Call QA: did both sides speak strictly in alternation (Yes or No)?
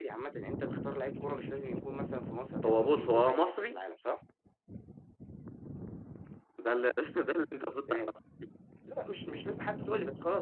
No